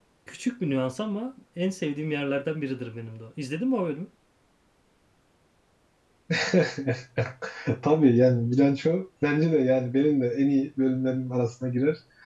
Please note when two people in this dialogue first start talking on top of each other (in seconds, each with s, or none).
none